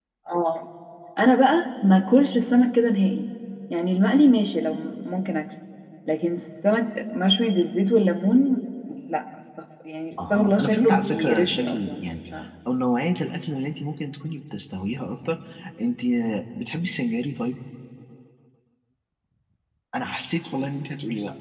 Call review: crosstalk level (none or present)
present